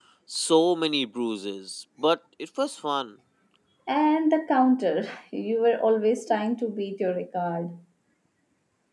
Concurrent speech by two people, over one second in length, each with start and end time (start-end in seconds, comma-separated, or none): none